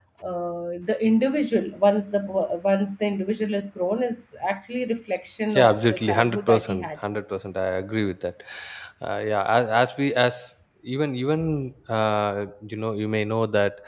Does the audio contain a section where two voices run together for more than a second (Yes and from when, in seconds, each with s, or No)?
Yes, from 5.5 s